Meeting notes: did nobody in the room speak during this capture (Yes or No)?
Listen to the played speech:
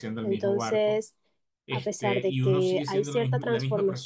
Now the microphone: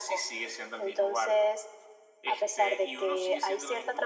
Yes